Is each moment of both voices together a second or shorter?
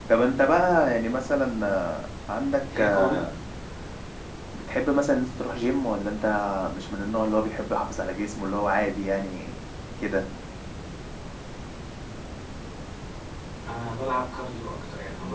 Yes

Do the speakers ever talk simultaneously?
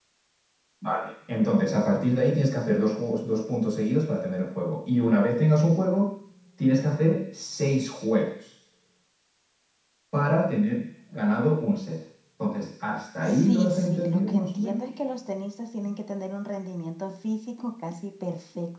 Yes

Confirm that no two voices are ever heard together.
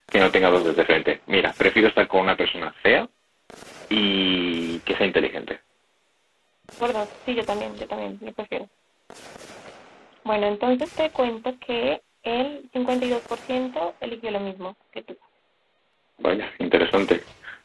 Yes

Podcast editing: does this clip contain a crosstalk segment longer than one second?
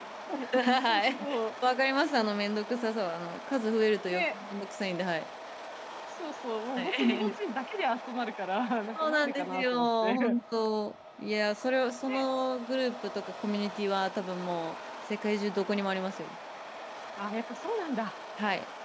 Yes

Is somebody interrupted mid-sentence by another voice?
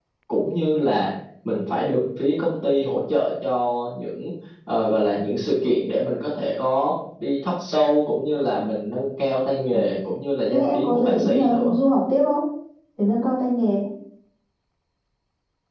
Yes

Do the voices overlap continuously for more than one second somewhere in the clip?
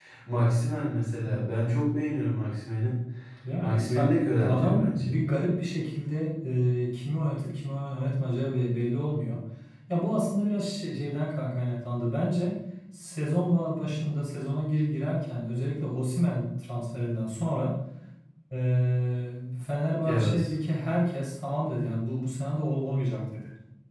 Yes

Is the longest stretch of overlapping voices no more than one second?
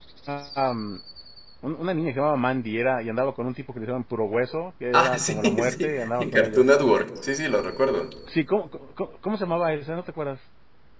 No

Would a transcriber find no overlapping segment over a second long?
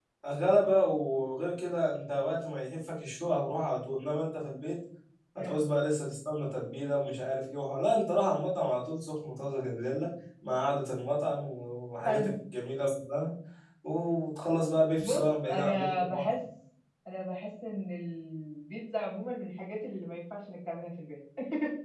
No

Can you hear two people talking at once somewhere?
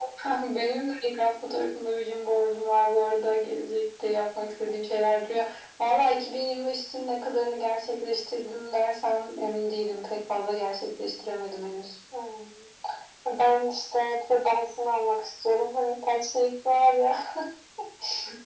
No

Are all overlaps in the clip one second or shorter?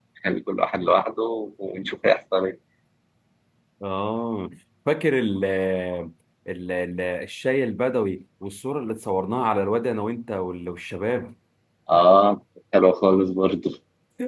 Yes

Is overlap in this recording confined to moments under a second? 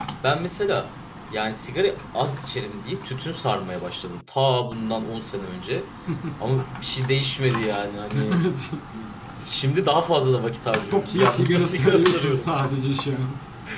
No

